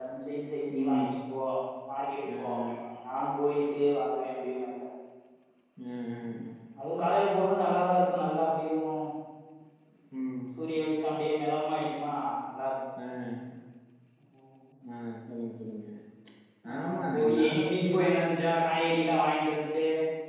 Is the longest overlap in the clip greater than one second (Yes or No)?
Yes